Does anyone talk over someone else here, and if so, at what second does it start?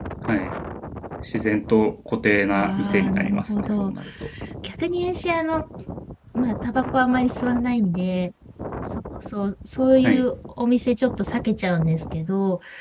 2.5 s

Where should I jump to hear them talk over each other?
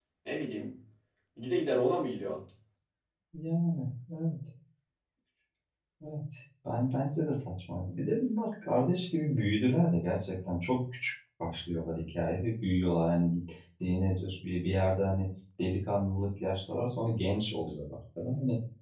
none

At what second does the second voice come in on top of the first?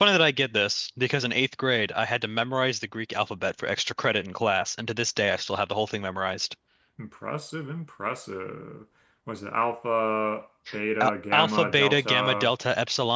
11.0 s

